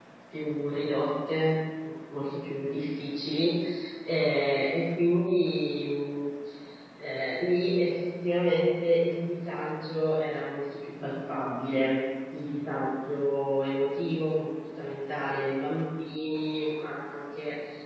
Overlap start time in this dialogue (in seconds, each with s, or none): none